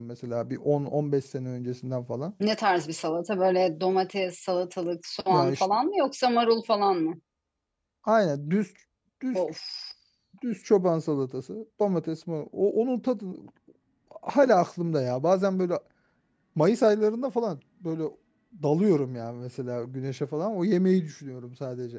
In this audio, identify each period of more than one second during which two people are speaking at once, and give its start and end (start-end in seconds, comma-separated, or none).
none